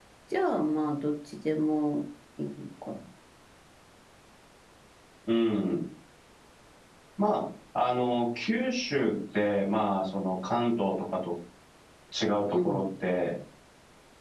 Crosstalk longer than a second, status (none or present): none